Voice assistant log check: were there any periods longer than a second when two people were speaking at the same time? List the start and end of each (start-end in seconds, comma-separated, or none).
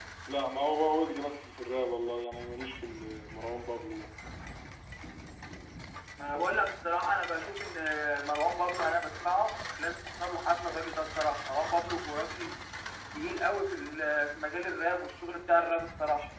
none